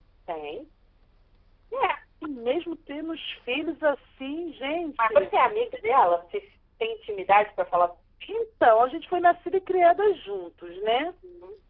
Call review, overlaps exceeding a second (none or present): none